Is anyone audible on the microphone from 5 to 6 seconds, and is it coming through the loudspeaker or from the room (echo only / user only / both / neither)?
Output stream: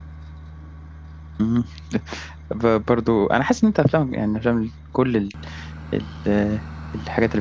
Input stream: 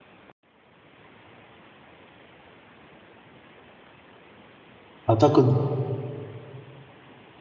user only